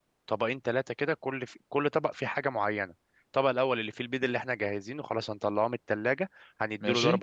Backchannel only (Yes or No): Yes